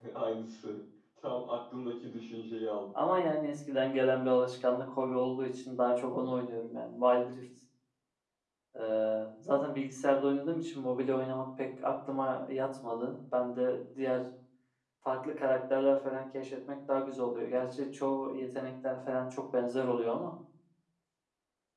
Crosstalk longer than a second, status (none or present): none